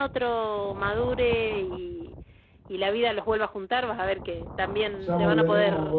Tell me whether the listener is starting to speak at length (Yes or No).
Yes